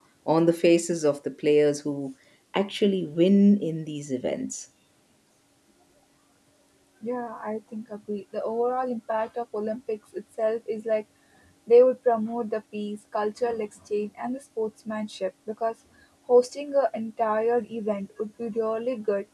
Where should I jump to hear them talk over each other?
none

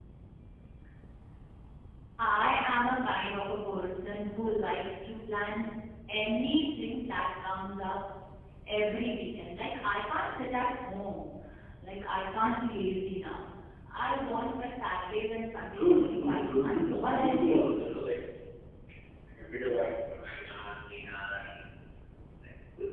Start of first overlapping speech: 15.8 s

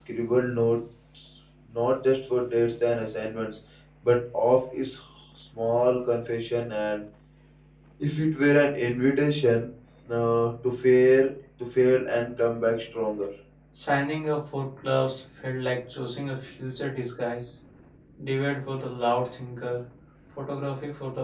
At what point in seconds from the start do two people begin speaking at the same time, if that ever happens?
none

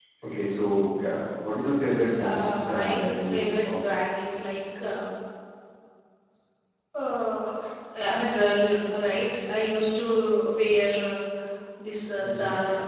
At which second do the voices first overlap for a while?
2.2 s

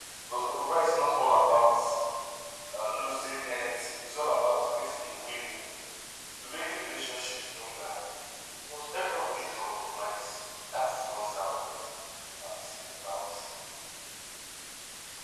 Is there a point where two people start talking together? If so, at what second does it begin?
none

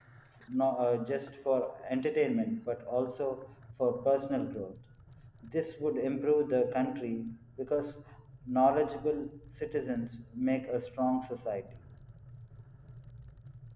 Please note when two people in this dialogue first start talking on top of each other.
none

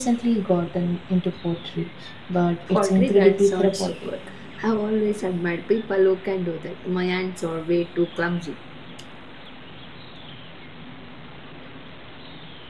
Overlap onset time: 2.7 s

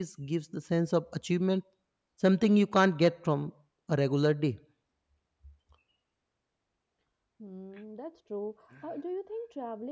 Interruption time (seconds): none

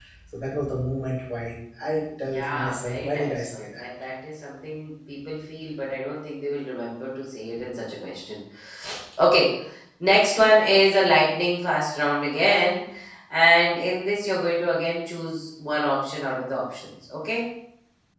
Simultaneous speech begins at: 2.3 s

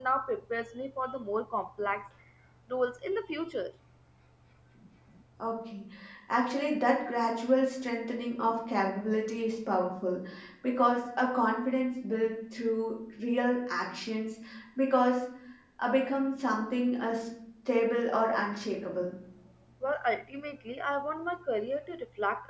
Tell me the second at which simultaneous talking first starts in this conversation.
none

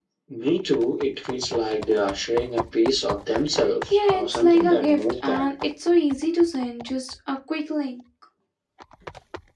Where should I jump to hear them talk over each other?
3.9 s

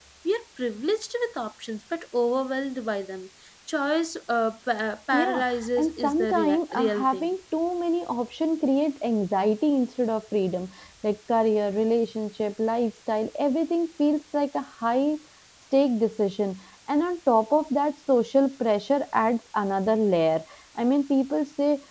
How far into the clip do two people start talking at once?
5.1 s

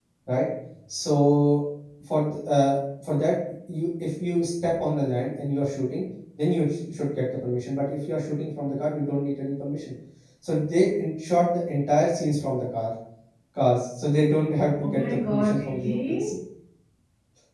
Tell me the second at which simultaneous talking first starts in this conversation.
14.8 s

